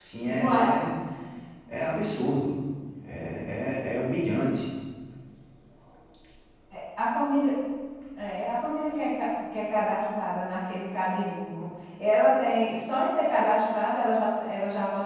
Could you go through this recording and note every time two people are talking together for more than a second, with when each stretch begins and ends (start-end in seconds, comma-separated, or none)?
none